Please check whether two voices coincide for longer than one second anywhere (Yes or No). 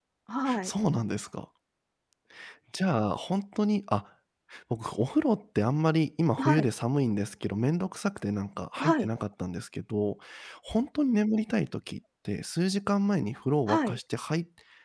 No